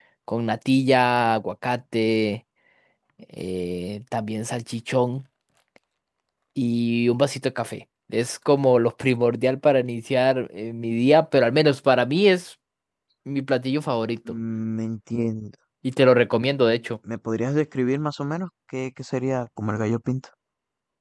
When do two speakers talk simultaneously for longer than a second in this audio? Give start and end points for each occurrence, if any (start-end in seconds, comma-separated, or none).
none